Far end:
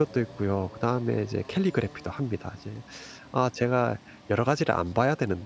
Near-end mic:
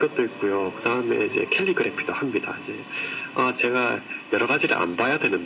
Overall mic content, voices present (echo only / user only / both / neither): echo only